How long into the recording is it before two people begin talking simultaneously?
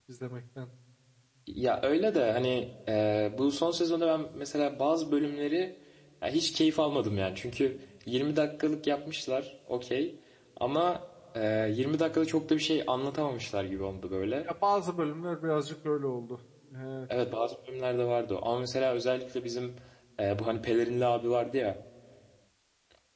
none

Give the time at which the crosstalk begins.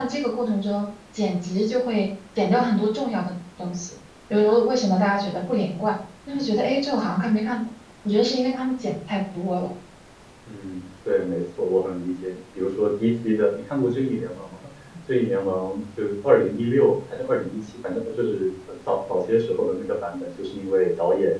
none

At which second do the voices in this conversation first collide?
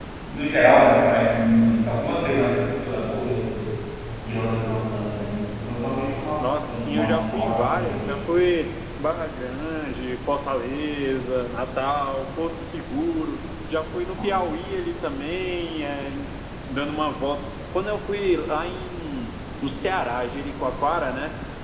6.4 s

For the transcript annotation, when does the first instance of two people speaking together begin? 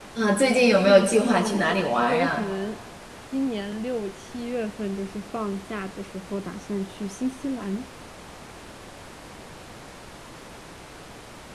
0.9 s

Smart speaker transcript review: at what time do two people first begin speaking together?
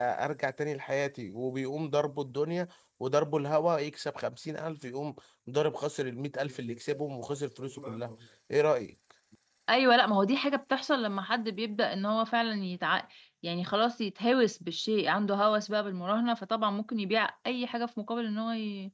none

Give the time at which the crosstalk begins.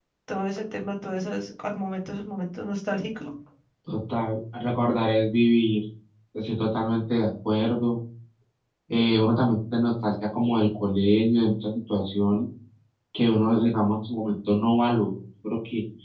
none

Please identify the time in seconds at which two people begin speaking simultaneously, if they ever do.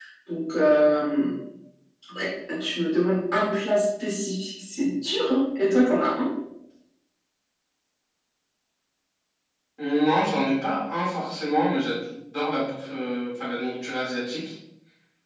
none

